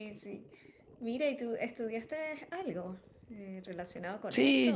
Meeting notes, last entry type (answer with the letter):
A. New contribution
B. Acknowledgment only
A